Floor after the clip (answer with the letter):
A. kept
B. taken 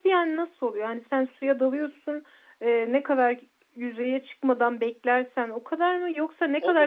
B